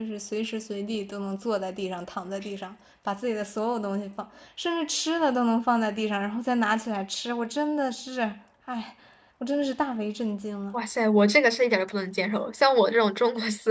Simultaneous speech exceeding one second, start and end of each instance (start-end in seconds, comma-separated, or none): none